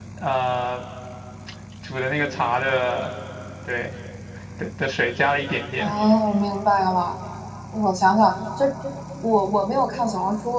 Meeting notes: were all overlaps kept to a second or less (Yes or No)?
Yes